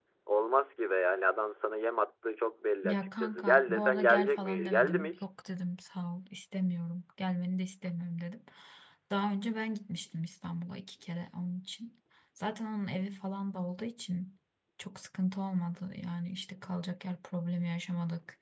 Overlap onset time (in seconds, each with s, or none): 2.8 s